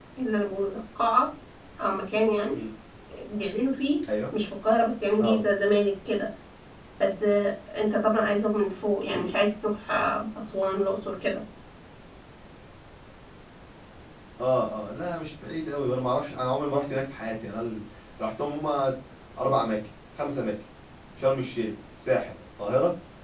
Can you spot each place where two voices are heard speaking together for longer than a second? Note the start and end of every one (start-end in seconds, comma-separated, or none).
none